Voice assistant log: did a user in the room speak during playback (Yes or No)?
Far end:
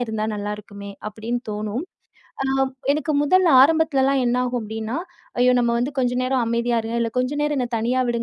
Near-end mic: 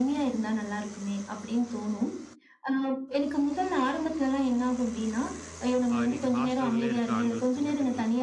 Yes